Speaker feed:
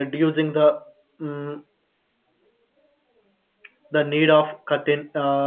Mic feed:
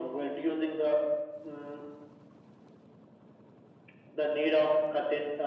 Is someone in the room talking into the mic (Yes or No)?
No